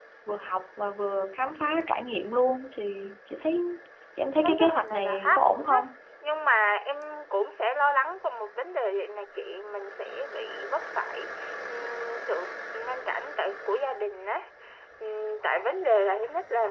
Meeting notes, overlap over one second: present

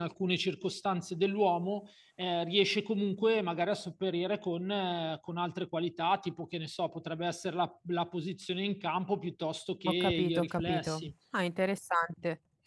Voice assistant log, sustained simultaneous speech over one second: present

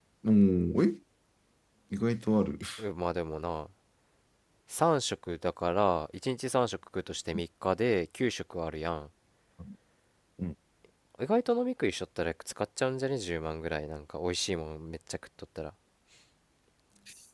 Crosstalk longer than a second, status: none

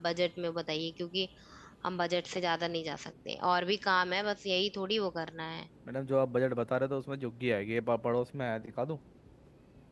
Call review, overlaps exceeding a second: none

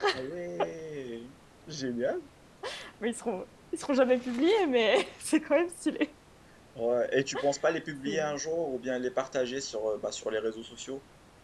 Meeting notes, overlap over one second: none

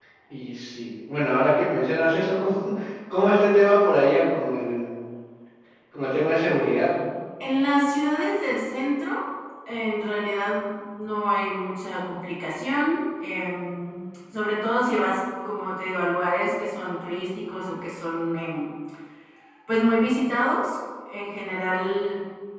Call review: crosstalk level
none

